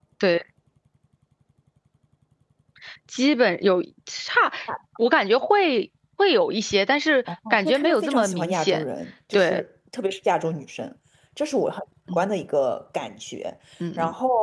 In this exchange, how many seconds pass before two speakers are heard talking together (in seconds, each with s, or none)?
7.5 s